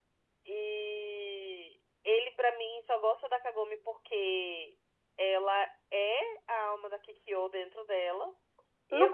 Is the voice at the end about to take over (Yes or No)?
Yes